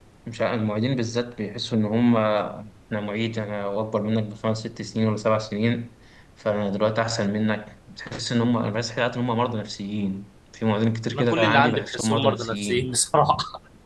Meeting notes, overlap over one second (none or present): present